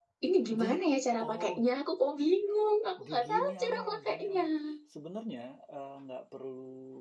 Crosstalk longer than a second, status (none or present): present